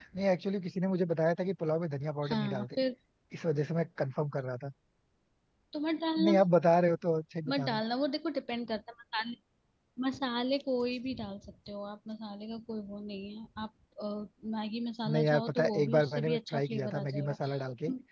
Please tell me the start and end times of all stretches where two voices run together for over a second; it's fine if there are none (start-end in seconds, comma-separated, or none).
15.1-17.4